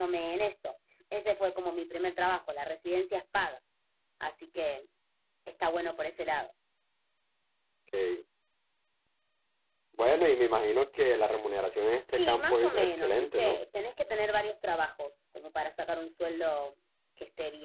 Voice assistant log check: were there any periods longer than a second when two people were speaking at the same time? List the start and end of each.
12.1-13.6

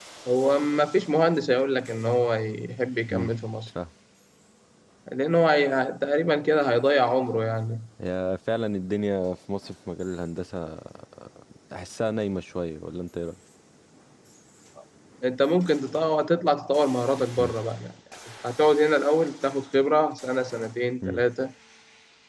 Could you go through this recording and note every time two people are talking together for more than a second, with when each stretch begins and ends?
none

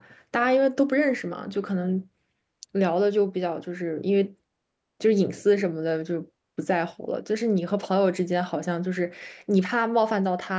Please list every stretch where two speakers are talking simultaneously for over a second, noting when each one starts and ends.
none

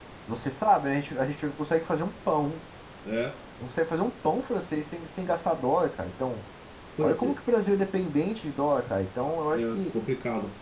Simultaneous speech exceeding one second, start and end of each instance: none

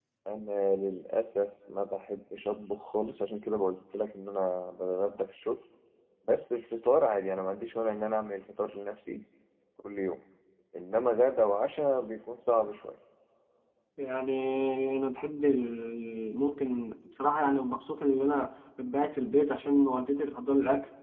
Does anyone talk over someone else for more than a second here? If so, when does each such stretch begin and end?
none

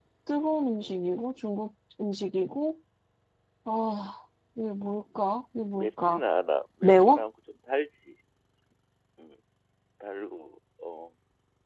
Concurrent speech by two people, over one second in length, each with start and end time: none

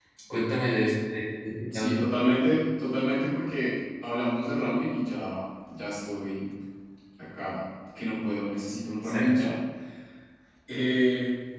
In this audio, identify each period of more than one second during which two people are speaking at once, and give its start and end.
none

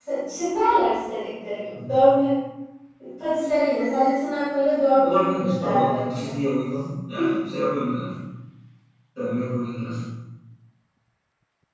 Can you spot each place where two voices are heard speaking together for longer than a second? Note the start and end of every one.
4.9-6.3

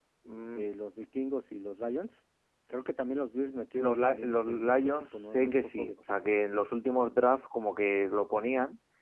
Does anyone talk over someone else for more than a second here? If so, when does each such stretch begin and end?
3.8-6.0

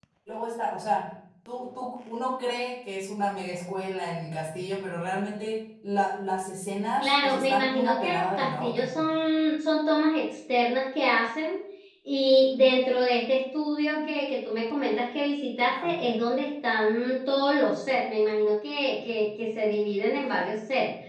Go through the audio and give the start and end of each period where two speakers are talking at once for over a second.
7.0-9.0

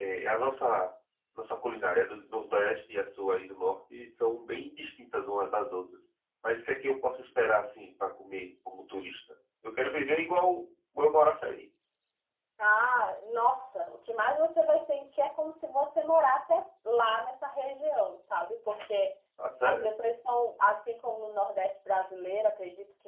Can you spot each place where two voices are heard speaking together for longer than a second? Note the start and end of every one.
none

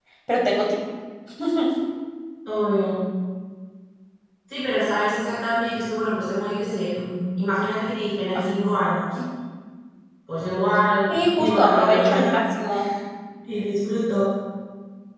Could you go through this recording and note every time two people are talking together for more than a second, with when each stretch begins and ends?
11.1-12.4

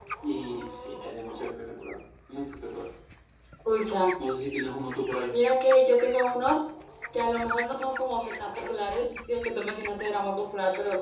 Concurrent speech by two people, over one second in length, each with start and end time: none

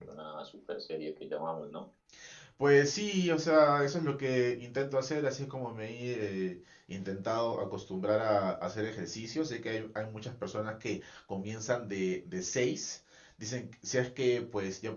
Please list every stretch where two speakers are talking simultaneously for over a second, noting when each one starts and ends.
none

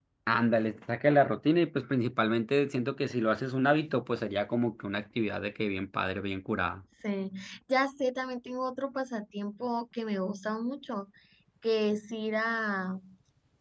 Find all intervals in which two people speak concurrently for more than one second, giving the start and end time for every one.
none

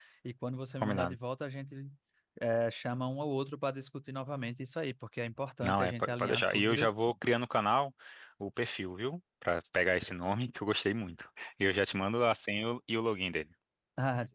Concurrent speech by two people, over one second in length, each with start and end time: 5.6-6.9

